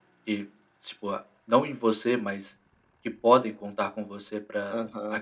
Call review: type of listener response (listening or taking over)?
taking over